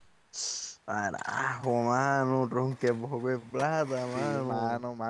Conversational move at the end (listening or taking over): taking over